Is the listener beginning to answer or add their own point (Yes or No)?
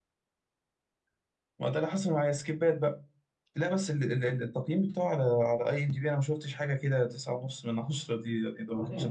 Yes